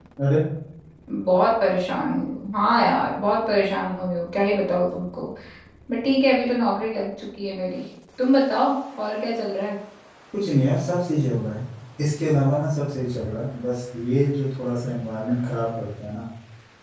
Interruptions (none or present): none